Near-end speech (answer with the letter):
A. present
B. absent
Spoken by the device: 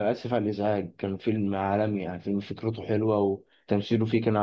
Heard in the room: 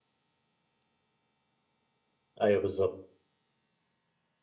A